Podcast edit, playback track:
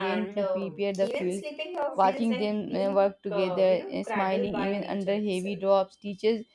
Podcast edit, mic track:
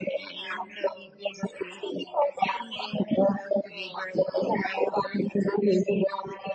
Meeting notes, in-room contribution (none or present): none